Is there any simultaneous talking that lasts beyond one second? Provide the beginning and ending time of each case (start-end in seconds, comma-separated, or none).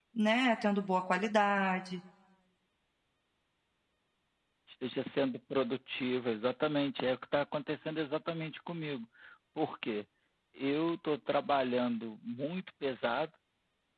none